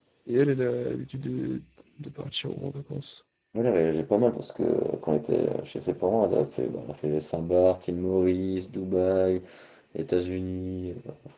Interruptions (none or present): none